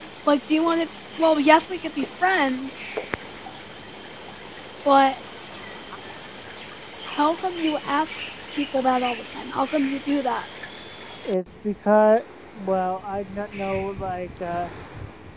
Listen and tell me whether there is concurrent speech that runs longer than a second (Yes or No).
No